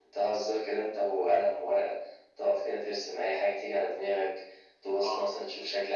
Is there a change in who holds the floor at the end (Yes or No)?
No